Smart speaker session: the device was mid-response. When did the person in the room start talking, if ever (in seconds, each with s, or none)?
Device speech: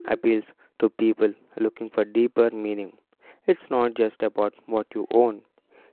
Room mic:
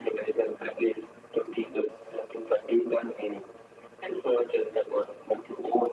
none